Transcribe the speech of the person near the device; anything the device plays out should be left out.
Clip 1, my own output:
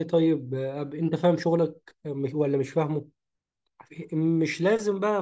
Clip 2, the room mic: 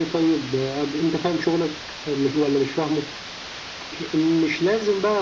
none

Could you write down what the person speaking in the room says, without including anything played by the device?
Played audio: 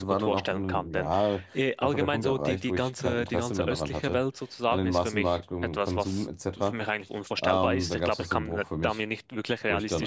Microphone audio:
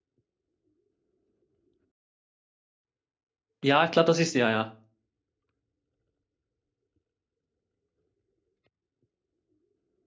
Ja, klar, das ist, ja, ja.

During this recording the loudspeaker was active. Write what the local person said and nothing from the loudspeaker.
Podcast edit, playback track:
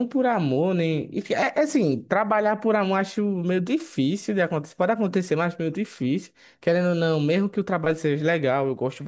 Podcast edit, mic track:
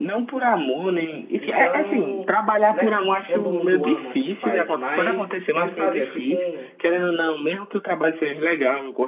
Então, não é que todo mundo ama o que faz, mas tem que fazer. É tipo um

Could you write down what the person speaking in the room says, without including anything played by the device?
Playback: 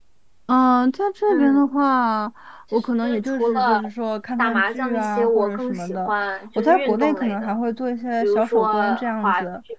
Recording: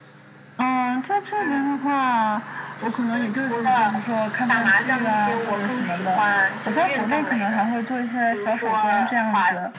none

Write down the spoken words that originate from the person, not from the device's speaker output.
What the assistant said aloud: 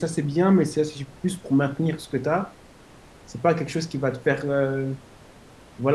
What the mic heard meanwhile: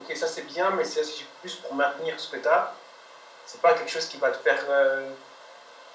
none

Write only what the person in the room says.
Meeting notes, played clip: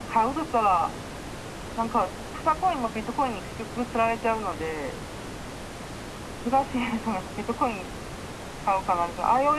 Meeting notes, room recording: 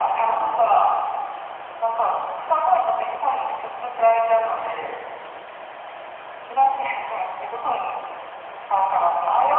none

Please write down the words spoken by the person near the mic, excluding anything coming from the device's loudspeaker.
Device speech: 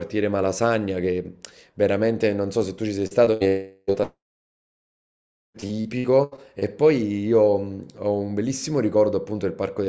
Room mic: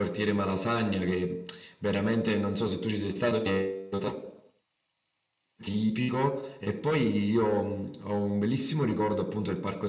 none

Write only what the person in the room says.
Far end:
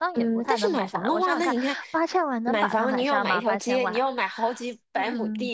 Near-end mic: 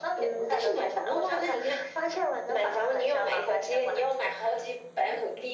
none

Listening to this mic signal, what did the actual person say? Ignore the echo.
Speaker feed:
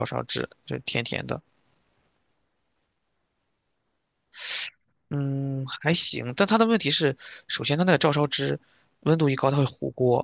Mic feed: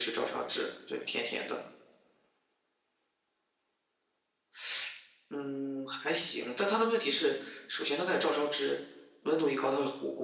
none

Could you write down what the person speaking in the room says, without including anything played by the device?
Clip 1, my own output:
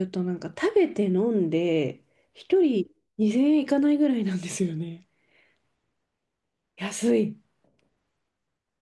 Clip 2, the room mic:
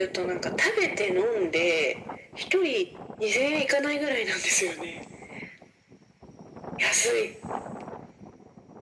none

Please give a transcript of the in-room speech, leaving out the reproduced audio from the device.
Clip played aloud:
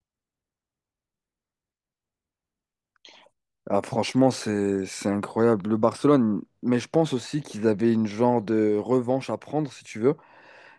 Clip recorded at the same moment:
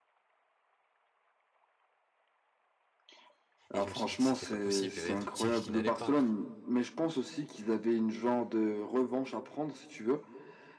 Et je me suis dit que c'était pas possible, il y avait un truc qui, qui n'allait pas.

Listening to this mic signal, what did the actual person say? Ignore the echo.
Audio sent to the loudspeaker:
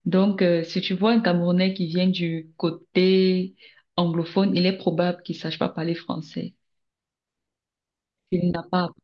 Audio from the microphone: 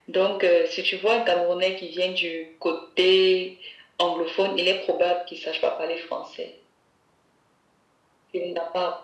none

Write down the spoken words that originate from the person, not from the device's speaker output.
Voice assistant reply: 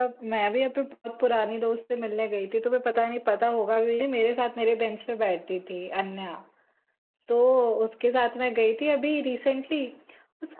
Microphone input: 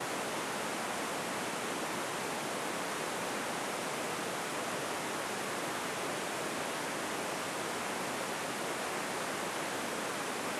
none

